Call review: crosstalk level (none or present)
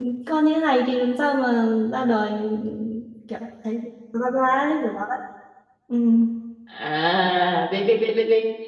none